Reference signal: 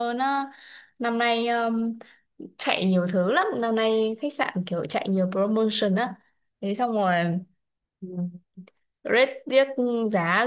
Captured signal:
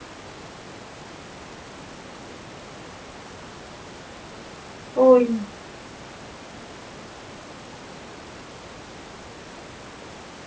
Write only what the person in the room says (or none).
ui.